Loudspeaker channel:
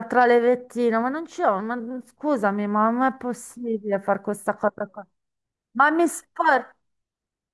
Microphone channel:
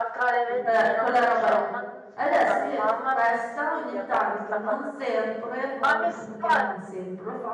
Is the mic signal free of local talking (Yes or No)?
No